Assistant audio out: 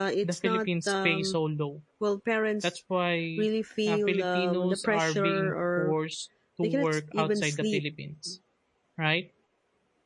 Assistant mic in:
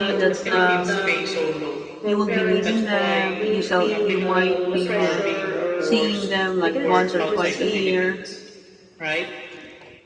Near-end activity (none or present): present